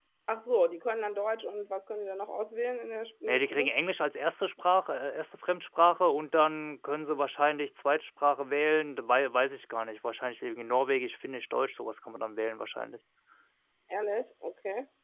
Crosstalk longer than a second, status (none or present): none